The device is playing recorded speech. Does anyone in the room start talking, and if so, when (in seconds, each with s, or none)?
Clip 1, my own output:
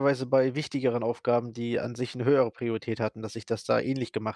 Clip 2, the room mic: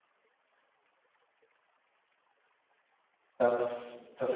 3.4 s